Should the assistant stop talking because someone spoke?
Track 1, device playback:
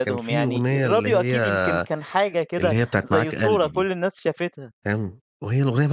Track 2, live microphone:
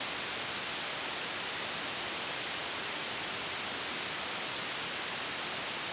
No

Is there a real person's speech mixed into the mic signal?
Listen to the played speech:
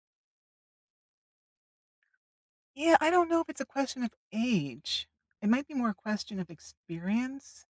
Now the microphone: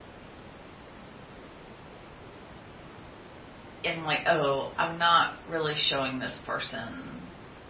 Yes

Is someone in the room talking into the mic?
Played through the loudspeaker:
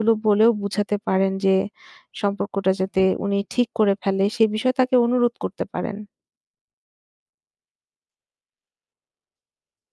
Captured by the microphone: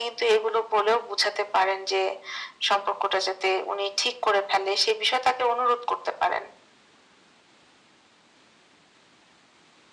No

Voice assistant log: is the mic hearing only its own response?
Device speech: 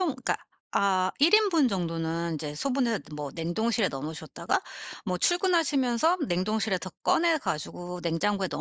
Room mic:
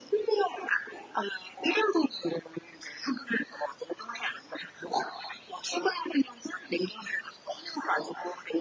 Yes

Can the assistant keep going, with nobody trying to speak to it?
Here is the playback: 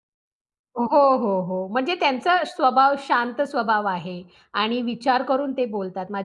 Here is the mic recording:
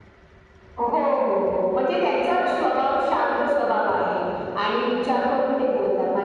Yes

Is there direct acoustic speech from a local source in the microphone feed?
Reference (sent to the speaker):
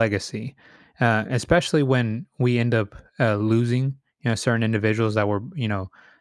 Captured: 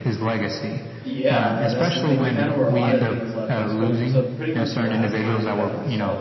Yes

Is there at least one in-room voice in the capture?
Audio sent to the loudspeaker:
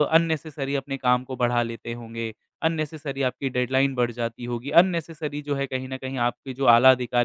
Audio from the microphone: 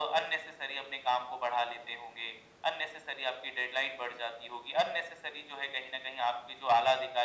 No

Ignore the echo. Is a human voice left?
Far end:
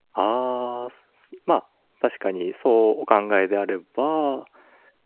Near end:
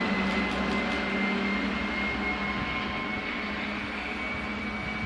No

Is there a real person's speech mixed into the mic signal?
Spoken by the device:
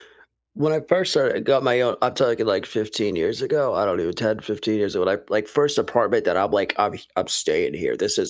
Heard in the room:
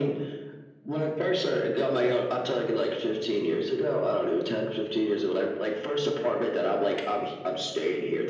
No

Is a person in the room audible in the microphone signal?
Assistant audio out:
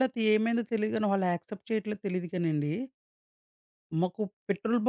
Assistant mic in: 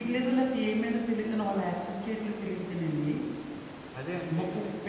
Yes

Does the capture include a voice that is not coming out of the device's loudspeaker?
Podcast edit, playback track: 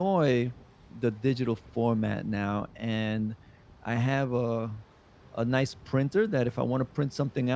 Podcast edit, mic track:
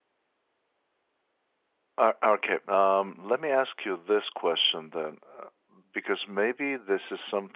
Yes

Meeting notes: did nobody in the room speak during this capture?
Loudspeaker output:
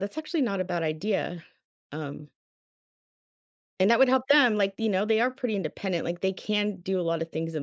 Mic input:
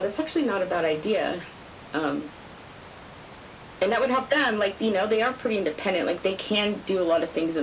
Yes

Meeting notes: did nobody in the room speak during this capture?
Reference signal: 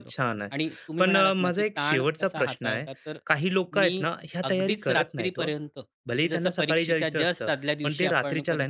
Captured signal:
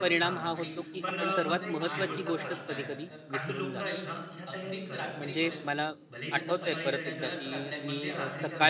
No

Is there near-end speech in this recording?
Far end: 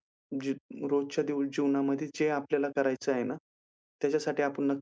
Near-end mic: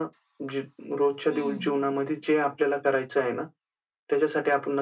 Yes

